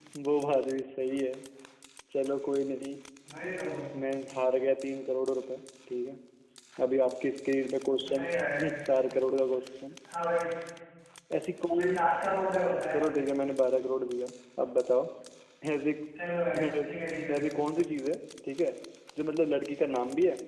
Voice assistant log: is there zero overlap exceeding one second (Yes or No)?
Yes